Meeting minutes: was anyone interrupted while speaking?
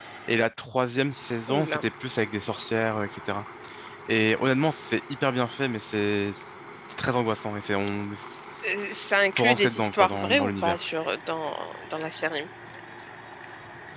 Yes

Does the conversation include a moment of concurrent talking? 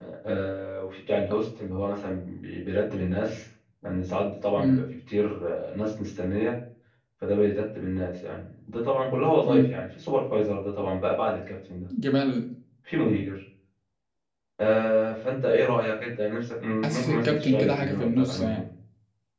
Yes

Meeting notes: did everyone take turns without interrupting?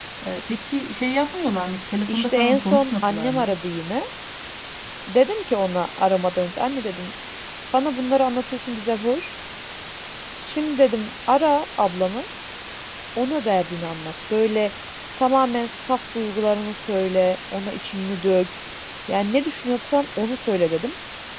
No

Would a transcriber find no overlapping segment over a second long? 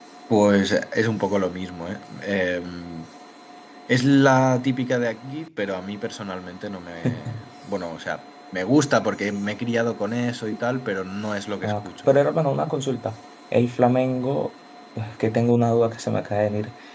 Yes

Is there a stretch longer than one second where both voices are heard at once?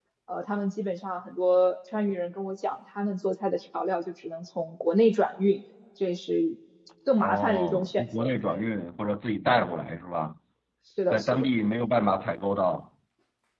Yes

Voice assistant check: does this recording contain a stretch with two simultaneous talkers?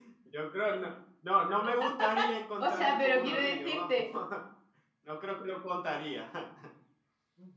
Yes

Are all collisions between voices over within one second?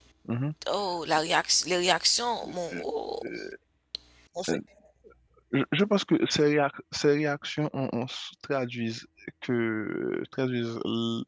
Yes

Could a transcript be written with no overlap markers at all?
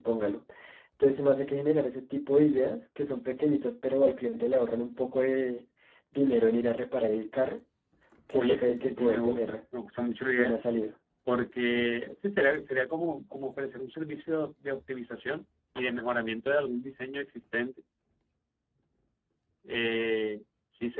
No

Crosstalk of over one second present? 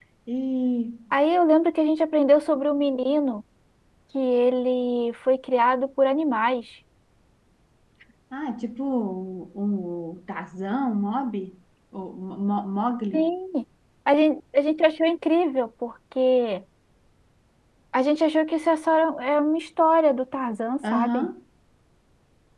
No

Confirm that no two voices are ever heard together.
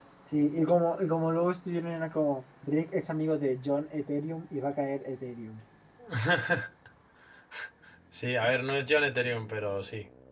Yes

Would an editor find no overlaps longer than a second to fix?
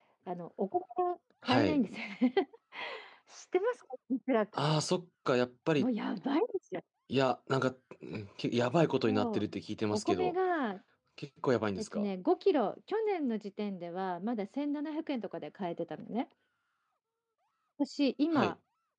Yes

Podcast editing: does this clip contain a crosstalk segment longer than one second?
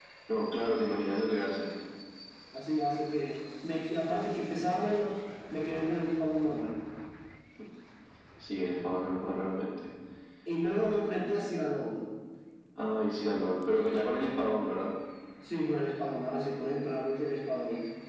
No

